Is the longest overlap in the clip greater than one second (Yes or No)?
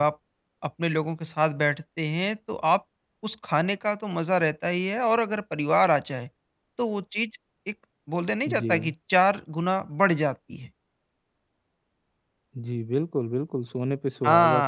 No